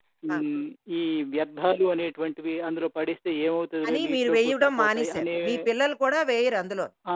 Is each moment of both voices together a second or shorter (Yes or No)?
No